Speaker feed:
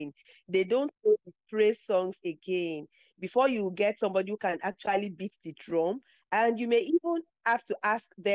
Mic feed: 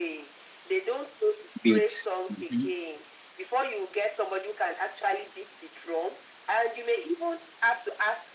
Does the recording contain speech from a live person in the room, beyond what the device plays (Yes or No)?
Yes